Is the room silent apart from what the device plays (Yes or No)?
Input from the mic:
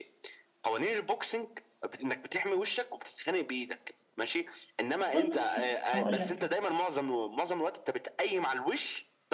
No